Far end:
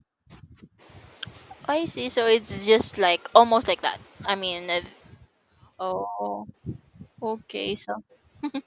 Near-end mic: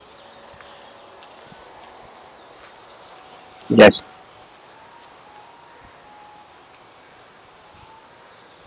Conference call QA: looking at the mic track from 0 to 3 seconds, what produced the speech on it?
neither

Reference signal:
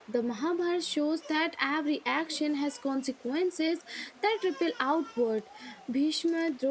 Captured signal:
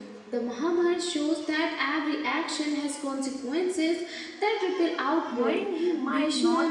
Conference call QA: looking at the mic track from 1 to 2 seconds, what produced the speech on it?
echo only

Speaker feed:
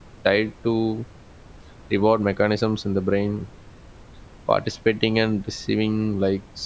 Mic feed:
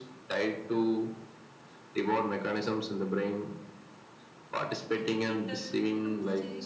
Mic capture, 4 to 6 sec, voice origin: both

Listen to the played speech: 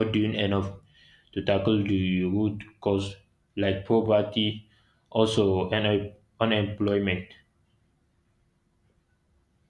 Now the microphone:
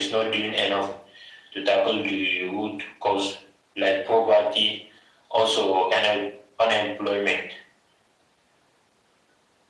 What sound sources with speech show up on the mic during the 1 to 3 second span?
echo only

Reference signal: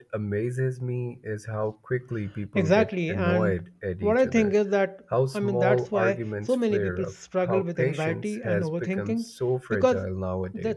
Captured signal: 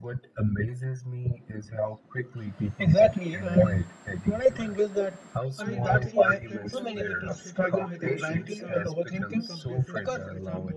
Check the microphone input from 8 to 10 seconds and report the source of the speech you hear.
both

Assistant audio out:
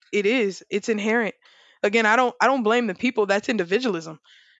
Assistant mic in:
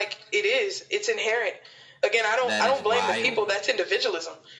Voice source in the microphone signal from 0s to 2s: echo only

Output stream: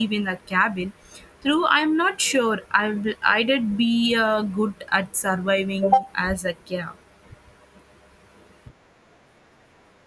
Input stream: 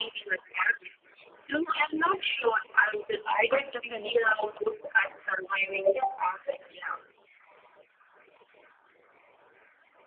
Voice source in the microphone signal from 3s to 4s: both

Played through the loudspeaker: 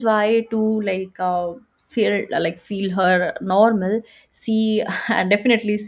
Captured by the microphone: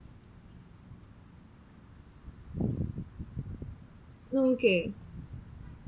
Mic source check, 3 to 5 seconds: user only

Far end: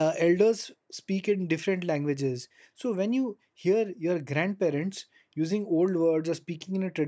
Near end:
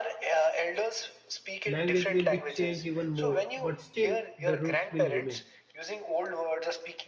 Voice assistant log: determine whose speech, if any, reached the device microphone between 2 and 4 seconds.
both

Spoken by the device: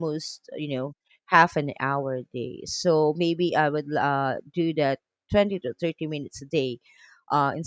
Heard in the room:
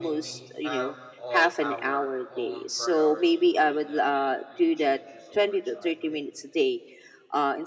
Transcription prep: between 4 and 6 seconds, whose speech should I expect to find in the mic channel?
both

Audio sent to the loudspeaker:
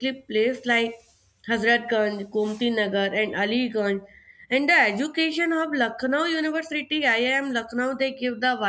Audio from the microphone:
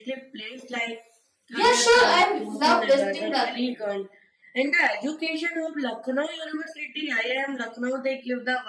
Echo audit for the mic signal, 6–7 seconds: echo only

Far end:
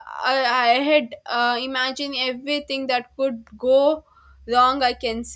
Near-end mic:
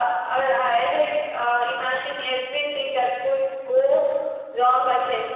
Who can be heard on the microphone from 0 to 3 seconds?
echo only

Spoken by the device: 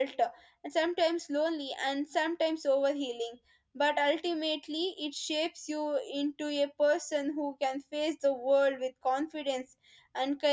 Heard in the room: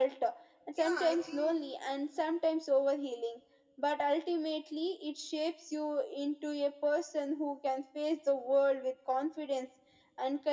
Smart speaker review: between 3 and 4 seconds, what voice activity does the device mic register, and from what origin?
echo only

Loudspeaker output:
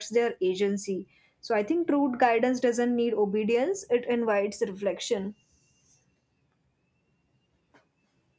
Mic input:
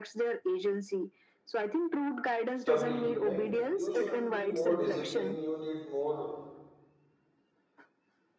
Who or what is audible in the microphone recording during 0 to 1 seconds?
echo only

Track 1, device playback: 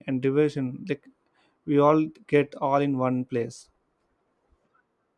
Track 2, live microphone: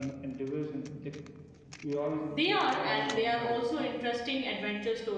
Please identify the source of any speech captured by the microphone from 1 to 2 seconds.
echo only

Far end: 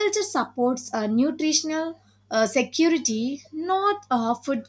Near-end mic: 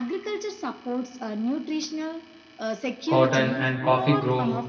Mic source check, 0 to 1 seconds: echo only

